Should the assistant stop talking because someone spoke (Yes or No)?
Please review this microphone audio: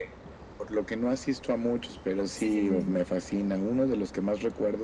Yes